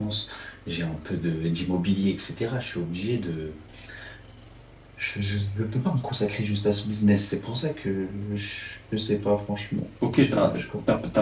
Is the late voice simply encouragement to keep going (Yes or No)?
No